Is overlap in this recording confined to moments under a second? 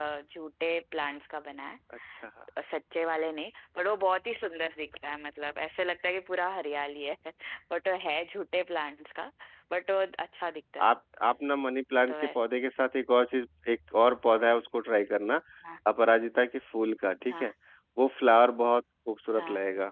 Yes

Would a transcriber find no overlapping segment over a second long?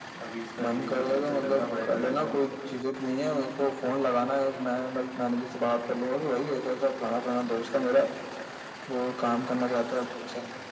No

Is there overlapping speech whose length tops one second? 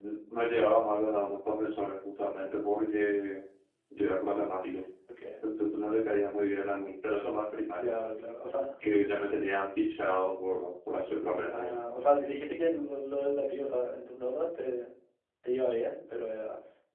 No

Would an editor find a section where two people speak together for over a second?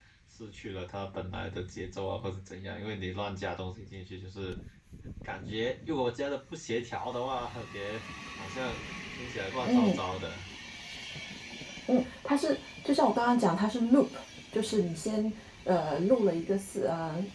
No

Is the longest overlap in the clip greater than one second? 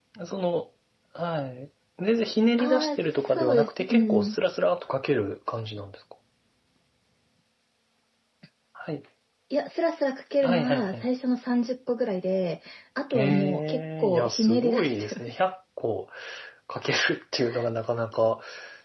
Yes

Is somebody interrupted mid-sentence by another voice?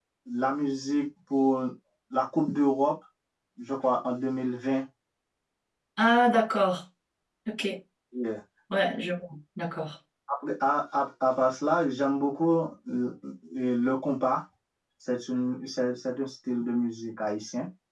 No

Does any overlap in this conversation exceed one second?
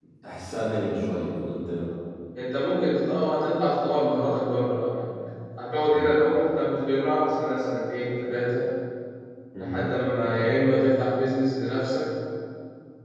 No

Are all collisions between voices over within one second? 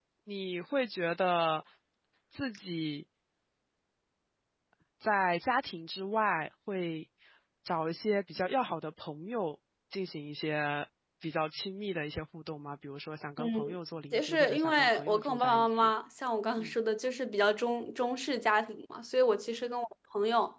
No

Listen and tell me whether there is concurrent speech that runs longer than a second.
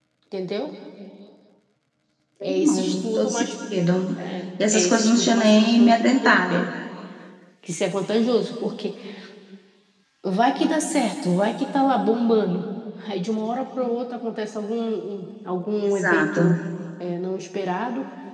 Yes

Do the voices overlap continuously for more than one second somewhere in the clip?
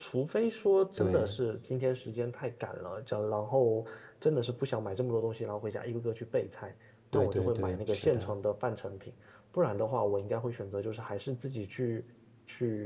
Yes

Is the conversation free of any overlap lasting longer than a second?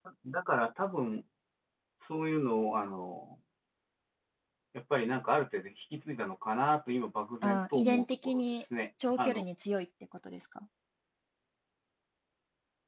No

